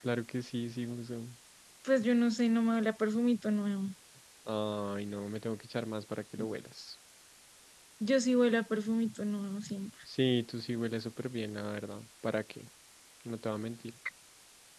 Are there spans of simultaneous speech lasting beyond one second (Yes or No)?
No